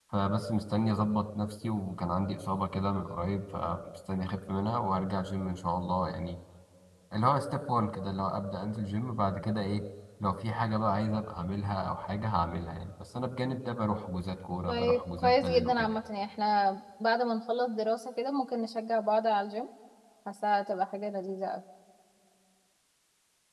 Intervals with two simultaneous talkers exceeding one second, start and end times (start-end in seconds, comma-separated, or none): 14.7-16.0